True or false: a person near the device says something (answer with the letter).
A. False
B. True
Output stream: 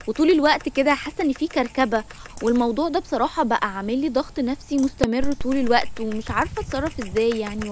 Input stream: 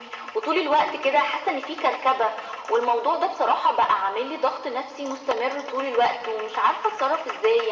A